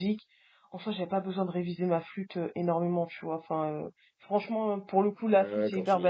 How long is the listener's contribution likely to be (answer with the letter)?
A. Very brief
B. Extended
B